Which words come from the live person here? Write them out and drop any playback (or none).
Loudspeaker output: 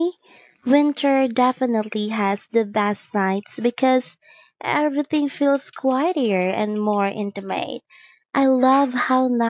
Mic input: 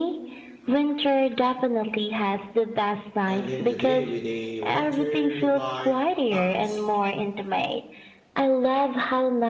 ending the day with a winter like night.